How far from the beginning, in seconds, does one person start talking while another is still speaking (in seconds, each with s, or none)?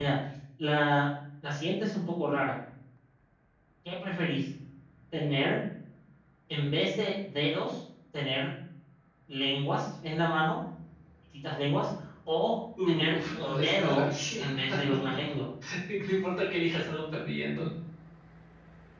12.8 s